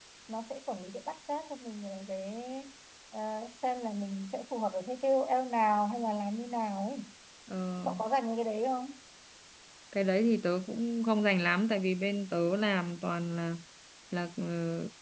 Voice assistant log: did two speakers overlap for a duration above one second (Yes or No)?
No